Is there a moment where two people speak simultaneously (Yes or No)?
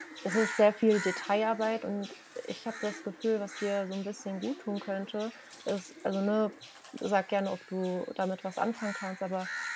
No